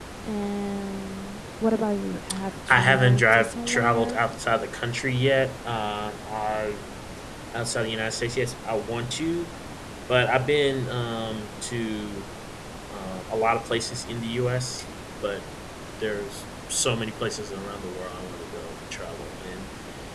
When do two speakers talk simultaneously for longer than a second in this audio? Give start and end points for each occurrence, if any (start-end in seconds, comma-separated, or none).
2.7-4.2